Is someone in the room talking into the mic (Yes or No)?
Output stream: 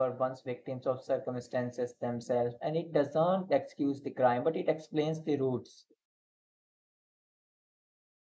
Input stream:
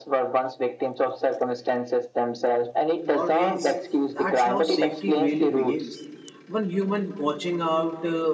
Yes